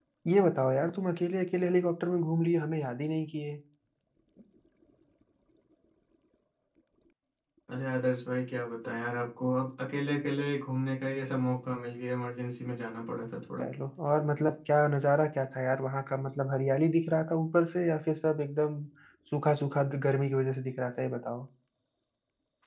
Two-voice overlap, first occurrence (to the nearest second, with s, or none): none